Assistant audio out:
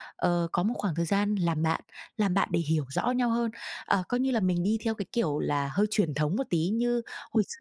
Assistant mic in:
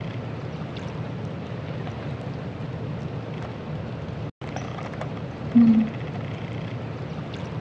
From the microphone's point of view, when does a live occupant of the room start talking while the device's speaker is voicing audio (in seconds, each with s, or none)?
5.5 s